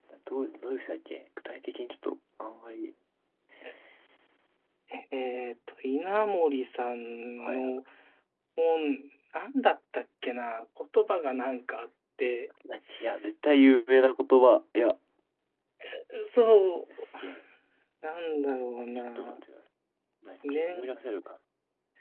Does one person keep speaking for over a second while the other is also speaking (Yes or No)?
No